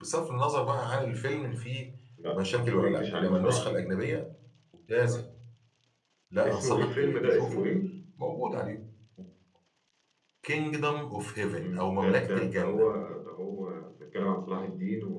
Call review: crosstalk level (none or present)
present